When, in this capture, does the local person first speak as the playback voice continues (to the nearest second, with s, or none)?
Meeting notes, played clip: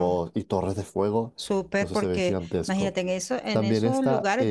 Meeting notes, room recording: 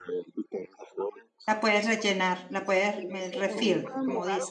1 s